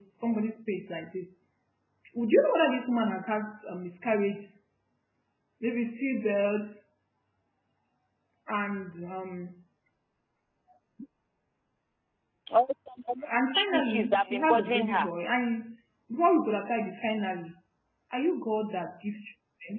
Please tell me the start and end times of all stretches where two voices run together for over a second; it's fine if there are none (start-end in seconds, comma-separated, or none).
13.5-15.1